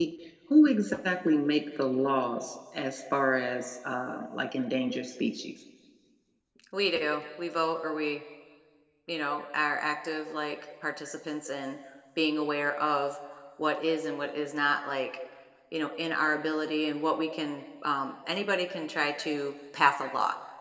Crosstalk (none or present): none